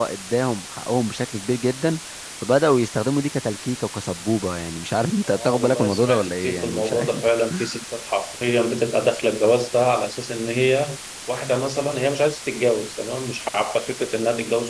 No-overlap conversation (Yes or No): No